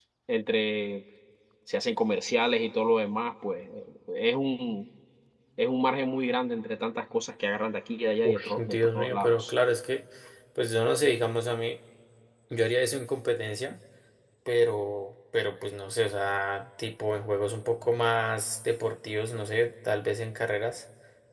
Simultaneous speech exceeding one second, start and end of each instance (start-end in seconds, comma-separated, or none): 8.2-9.5